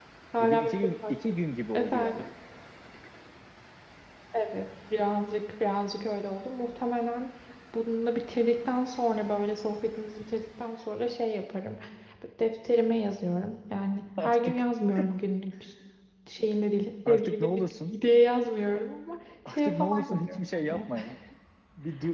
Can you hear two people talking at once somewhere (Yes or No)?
Yes